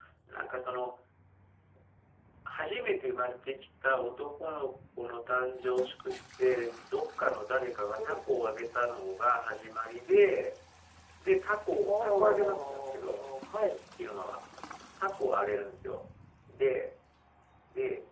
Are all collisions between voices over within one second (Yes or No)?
No